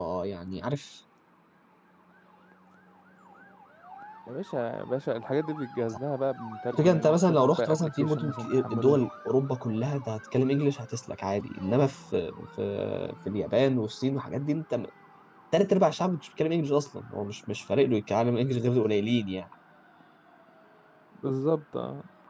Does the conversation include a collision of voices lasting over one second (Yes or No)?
Yes